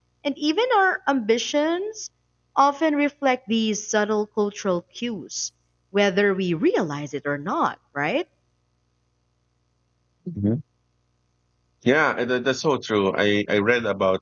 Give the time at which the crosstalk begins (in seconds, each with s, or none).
none